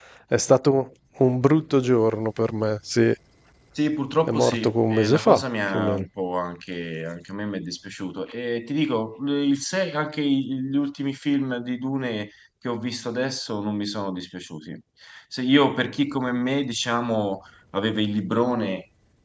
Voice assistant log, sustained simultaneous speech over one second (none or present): present